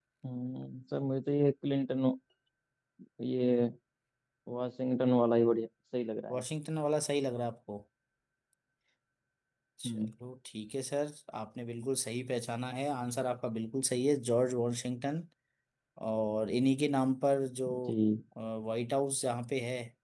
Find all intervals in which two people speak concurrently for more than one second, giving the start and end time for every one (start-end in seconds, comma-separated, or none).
none